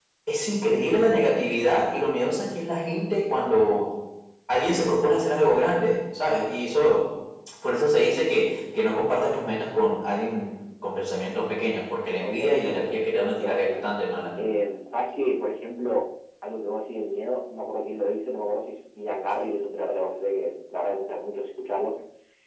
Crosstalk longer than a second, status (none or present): present